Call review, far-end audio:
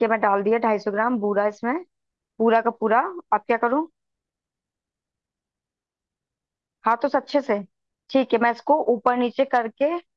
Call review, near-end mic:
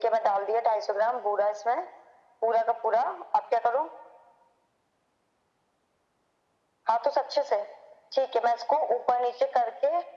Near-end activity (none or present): none